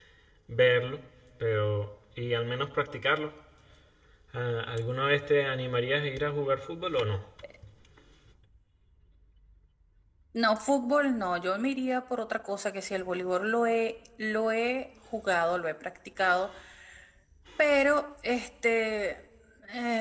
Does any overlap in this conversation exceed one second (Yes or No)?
No